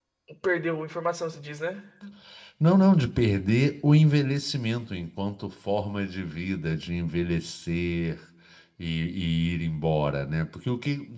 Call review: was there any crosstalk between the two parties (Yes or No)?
No